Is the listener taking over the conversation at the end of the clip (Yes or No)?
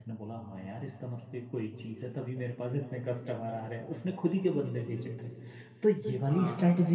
No